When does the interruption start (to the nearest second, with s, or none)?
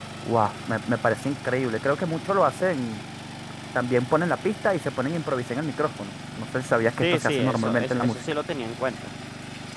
7 s